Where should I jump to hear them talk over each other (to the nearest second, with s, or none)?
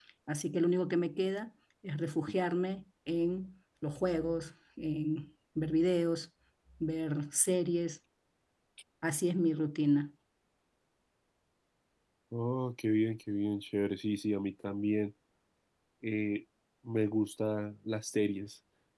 none